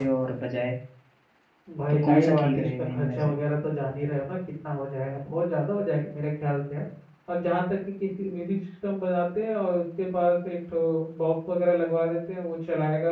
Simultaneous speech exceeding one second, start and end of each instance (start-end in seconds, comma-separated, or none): 1.9-3.3